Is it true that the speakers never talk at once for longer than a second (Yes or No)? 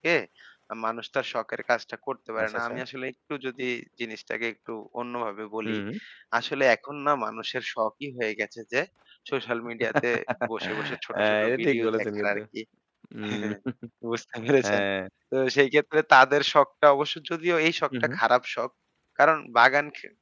No